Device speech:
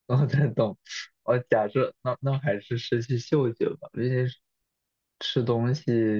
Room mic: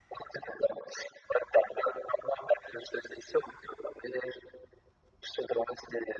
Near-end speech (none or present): none